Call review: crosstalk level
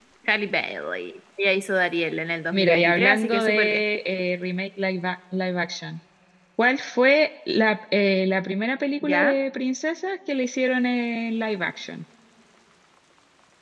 present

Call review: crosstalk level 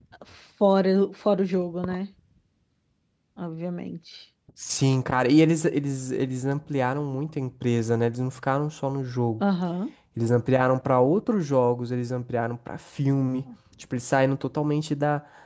none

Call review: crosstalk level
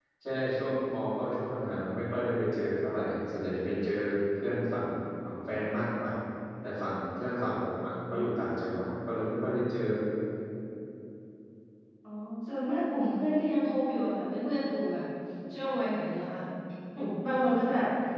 none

